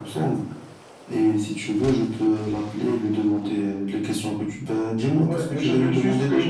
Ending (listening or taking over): taking over